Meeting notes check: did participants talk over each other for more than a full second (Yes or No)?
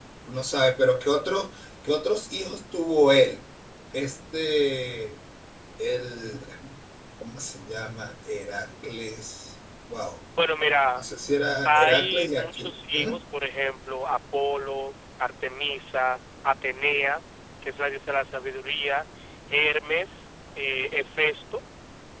Yes